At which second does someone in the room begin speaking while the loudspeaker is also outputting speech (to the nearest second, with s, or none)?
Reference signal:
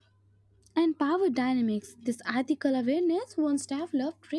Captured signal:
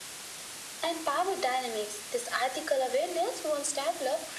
none